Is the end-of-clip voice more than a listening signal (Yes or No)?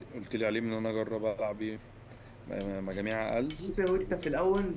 Yes